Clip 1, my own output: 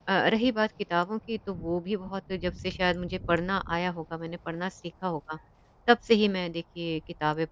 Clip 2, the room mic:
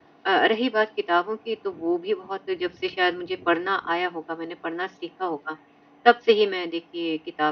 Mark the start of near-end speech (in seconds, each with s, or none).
none